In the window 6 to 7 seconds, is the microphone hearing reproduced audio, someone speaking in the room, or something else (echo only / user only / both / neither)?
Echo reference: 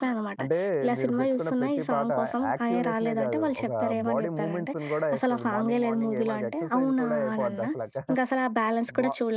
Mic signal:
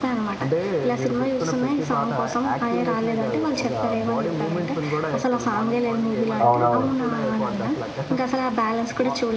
both